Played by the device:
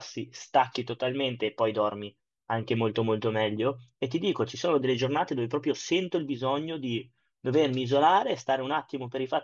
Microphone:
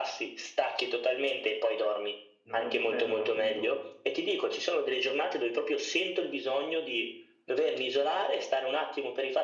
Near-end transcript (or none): non è un problema, ma appunto